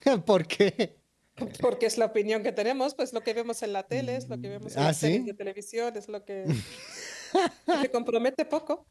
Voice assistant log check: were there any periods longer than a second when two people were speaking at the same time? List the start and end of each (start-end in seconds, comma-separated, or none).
3.9-5.2